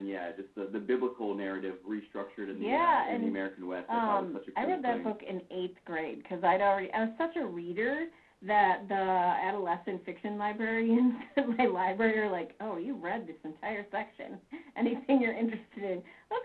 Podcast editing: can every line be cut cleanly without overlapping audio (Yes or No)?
No